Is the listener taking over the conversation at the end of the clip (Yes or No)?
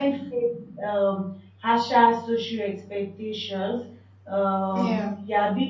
No